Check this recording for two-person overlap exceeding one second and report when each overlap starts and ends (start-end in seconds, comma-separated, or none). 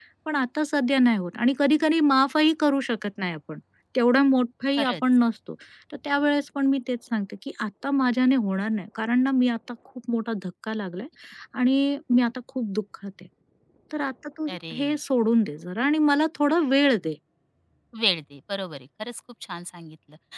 none